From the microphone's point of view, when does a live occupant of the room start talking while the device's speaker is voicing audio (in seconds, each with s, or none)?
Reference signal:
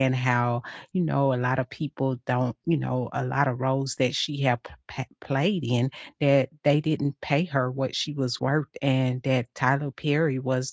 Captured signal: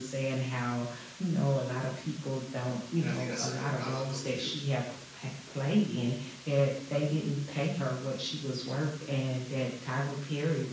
3.0 s